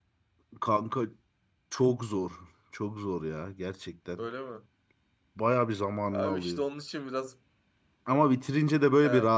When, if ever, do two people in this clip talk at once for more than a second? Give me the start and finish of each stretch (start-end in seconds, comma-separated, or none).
none